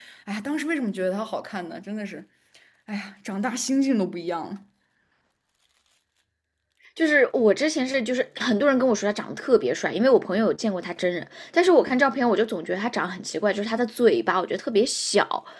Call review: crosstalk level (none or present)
none